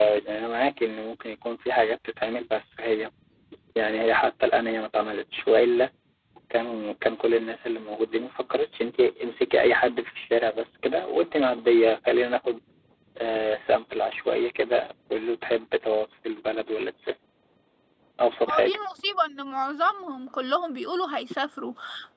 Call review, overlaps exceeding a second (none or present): none